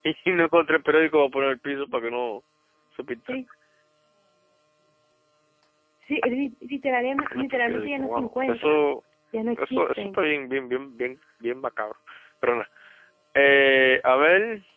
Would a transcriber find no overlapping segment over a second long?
No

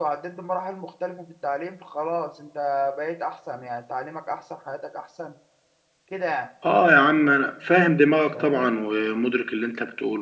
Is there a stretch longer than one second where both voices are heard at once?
No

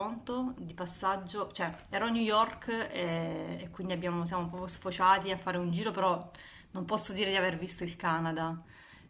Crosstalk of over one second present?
No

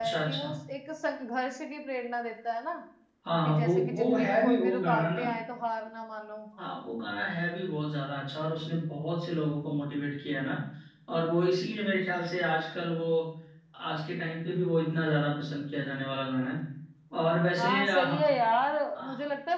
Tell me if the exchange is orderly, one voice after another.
No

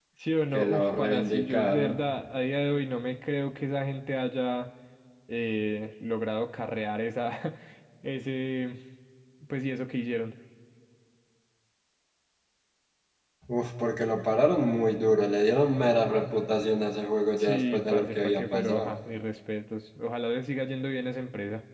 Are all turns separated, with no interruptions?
No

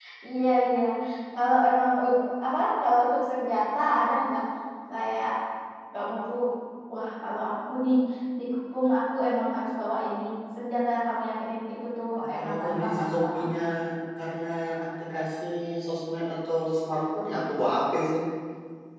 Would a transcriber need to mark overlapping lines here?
Yes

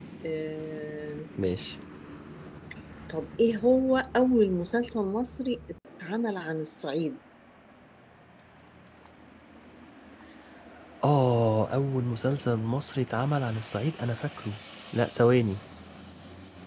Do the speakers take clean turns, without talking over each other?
Yes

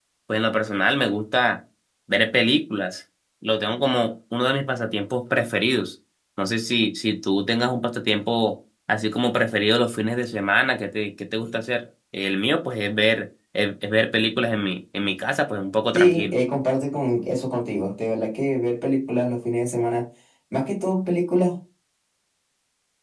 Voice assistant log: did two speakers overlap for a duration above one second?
No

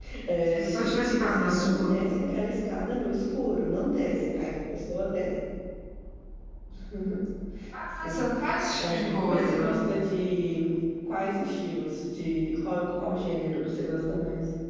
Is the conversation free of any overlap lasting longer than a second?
No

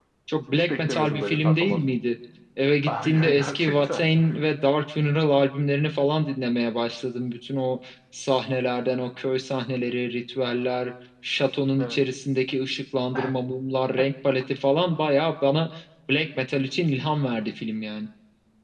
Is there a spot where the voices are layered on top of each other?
Yes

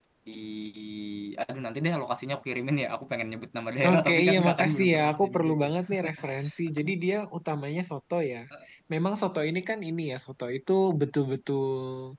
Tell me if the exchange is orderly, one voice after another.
No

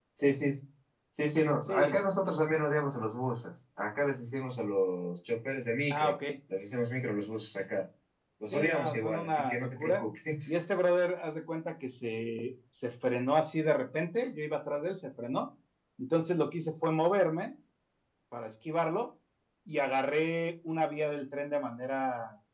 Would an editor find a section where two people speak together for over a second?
Yes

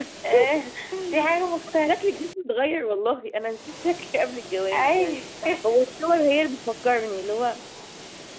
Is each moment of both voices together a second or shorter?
Yes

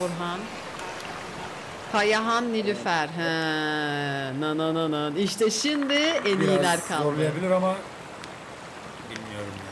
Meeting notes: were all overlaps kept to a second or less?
No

